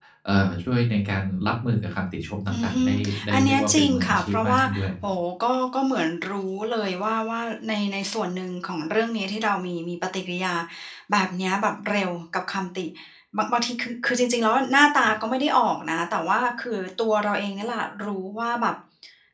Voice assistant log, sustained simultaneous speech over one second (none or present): present